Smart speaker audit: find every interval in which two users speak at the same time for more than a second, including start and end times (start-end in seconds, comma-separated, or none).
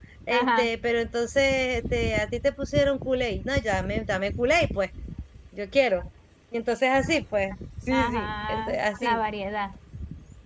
7.9-9.2